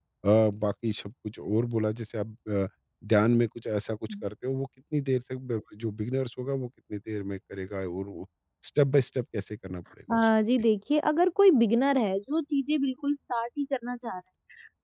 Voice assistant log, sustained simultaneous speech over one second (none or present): none